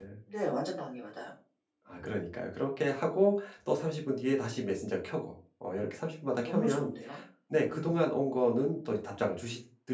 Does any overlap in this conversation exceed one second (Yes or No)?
No